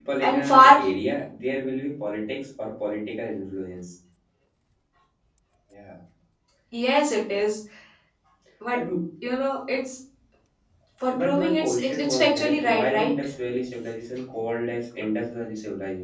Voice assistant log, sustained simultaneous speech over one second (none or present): present